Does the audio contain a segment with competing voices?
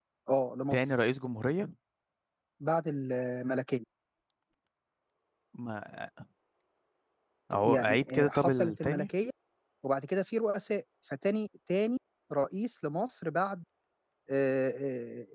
Yes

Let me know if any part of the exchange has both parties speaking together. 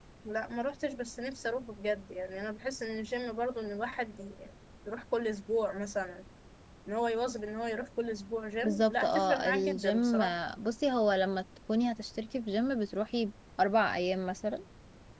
Yes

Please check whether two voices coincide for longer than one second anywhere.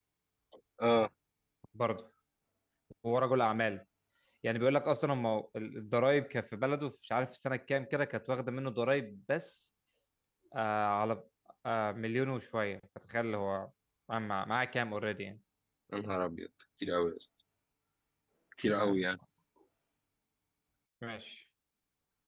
No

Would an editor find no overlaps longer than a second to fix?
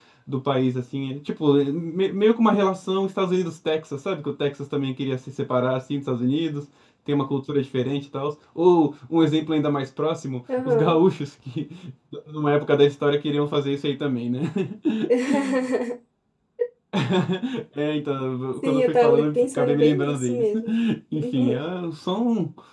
No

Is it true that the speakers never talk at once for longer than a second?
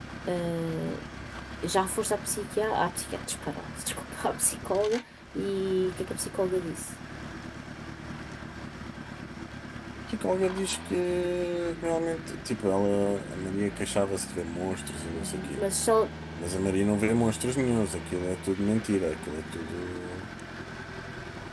Yes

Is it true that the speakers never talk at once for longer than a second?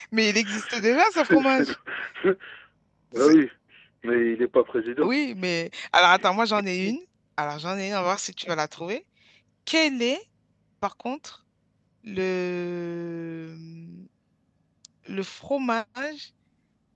No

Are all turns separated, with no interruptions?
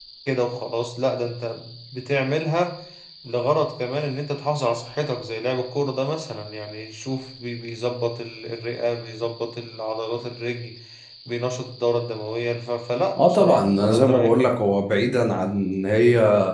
No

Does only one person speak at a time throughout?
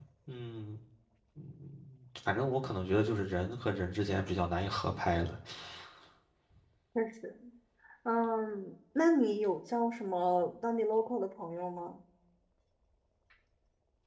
Yes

